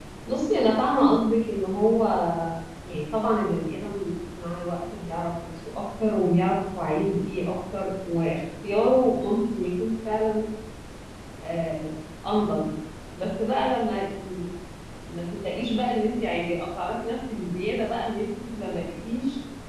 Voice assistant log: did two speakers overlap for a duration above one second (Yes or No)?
No